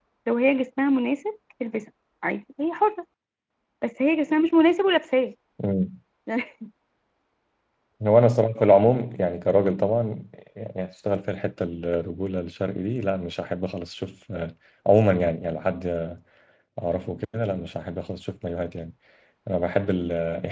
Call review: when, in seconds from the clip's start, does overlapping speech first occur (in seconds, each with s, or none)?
none